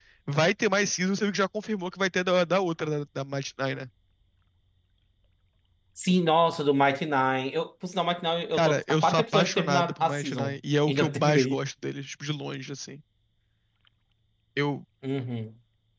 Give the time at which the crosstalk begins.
8.6 s

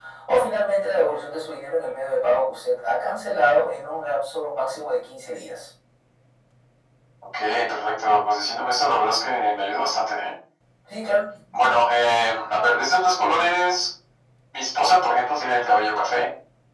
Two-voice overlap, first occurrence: none

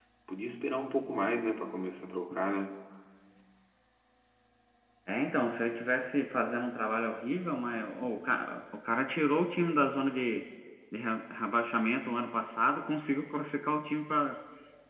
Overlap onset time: none

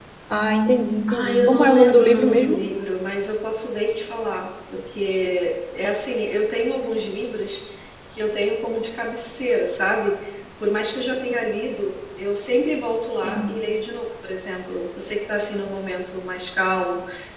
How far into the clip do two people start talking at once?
1.1 s

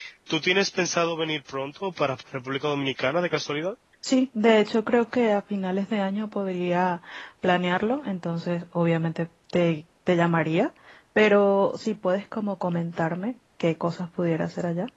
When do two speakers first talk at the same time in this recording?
none

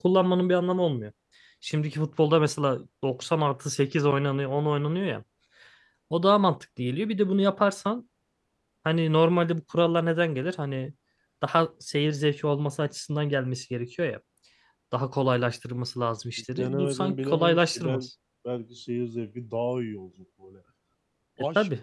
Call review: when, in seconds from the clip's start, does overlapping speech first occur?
16.6 s

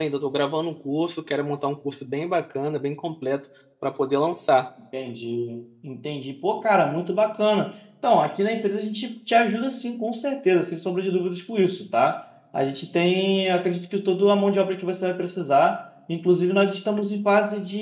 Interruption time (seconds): none

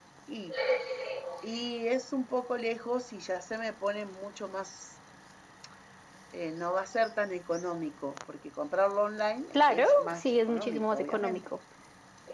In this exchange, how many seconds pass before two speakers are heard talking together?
9.5 s

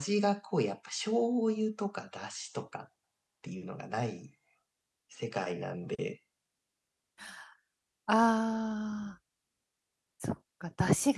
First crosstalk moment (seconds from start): none

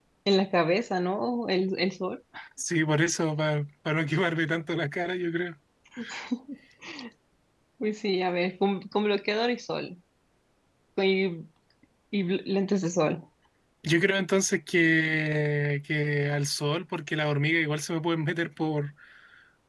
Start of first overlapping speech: none

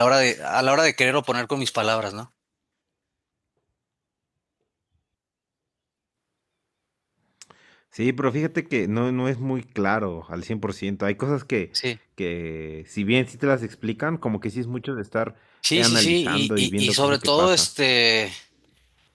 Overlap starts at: 15.7 s

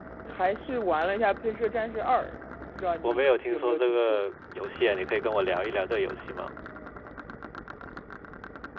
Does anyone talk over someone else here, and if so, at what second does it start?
3.0 s

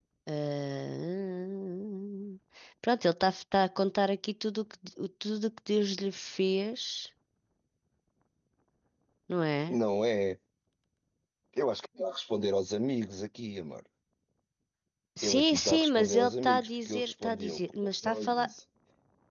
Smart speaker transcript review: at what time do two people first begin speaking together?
15.2 s

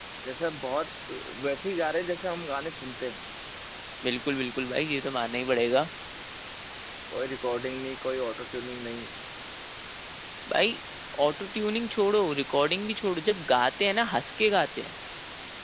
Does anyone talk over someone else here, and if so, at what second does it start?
none

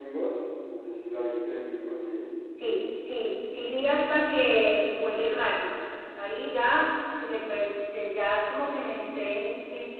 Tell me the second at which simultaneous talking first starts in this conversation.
none

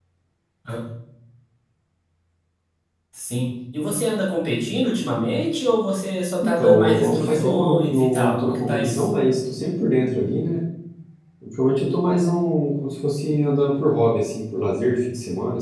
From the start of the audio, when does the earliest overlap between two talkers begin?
6.4 s

